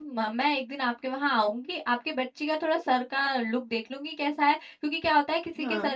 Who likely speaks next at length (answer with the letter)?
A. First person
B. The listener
A